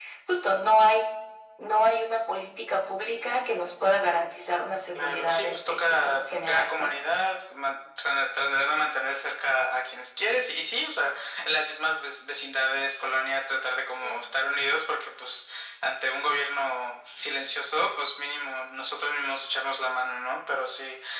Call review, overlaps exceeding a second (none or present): present